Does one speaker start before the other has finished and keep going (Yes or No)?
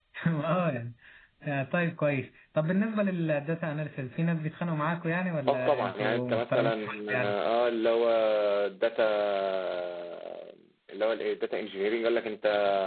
Yes